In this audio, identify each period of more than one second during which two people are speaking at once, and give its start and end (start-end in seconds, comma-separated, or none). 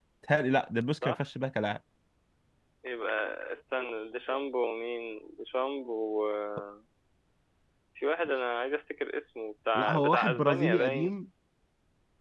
9.8-11.1